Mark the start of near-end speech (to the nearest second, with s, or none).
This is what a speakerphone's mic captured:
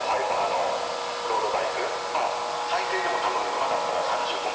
none